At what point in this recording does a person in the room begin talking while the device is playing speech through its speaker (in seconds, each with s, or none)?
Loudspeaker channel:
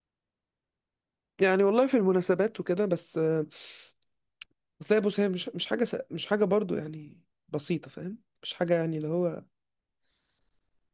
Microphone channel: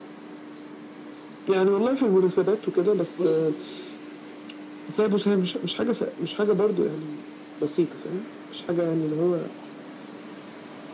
3.2 s